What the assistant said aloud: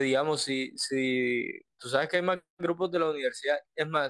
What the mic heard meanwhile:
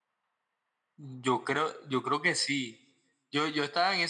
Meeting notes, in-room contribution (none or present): present